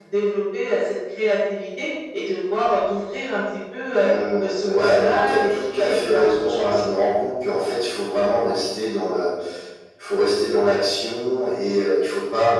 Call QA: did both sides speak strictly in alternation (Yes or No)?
No